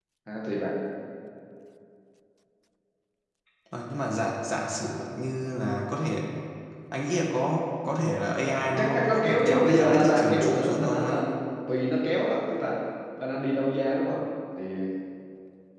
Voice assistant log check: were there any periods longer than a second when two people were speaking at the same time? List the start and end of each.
8.8-11.2

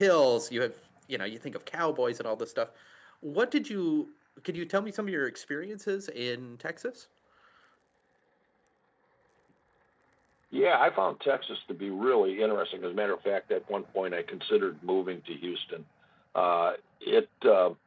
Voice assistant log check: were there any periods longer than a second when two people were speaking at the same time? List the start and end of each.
none

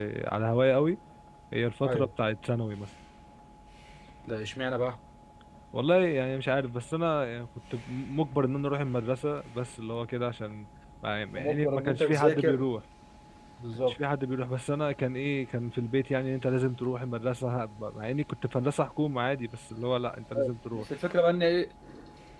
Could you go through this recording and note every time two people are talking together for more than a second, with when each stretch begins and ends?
11.3-12.6

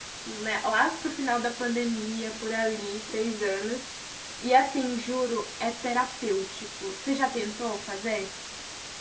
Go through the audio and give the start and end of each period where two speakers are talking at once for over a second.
none

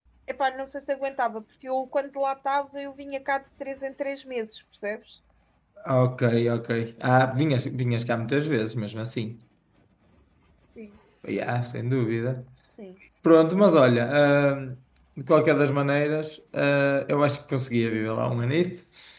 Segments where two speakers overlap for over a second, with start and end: none

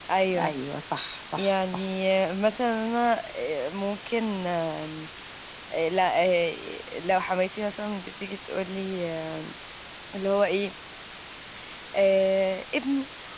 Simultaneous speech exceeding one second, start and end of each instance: none

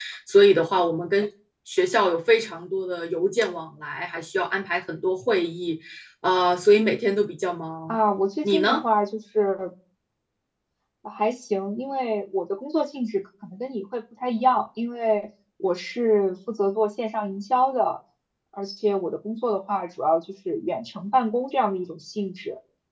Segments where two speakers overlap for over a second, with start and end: none

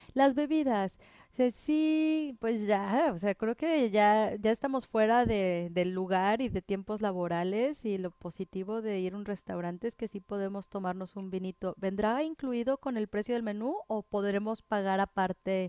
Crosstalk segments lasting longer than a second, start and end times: none

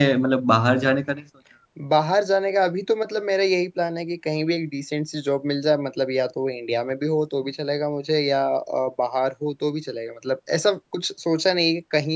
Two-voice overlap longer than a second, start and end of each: none

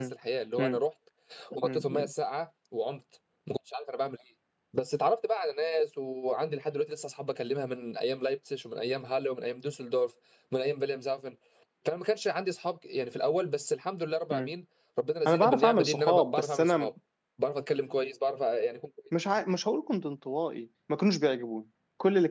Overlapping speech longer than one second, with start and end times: 15.3-16.9

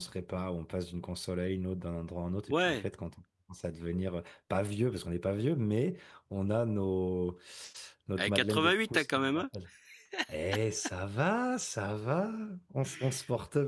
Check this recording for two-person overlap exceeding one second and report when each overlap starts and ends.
8.2-9.4

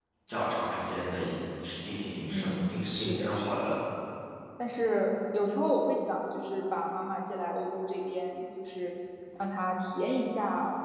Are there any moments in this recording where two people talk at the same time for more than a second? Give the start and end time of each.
2.2-3.8

